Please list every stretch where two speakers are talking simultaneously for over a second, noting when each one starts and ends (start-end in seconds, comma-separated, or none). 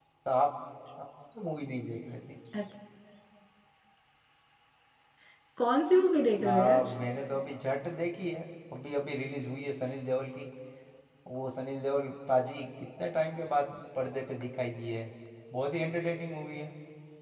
none